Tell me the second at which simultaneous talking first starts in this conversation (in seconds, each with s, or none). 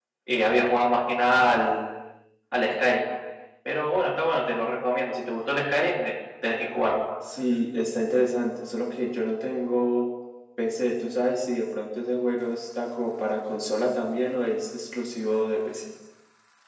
none